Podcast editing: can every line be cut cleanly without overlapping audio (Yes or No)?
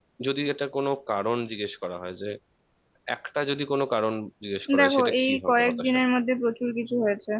No